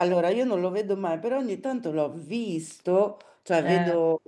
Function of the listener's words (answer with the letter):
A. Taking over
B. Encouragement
B